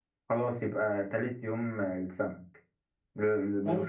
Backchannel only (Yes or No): Yes